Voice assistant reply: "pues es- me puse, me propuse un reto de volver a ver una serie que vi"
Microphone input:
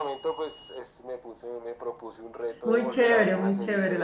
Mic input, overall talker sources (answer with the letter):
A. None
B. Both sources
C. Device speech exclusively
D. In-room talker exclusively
B